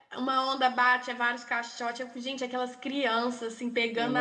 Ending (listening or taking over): listening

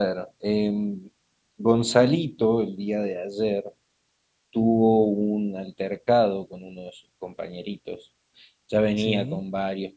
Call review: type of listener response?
listening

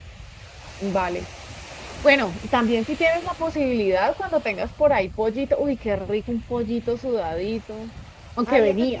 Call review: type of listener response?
taking over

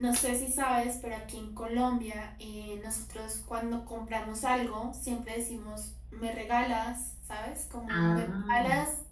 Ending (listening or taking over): listening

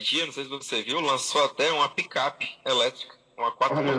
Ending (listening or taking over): listening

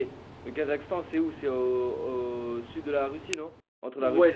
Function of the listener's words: taking over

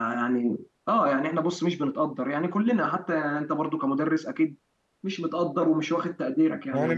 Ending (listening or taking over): taking over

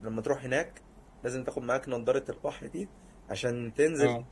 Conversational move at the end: listening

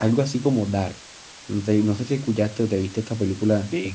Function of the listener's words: taking over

